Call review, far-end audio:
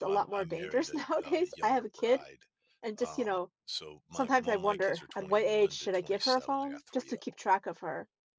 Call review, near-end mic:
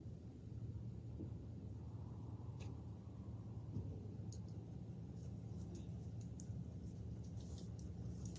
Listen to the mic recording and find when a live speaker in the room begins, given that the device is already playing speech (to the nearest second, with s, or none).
none